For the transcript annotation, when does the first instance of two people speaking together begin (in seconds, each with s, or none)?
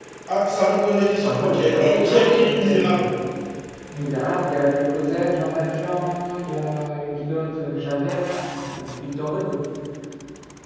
1.2 s